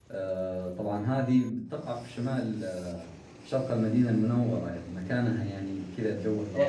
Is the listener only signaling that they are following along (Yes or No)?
No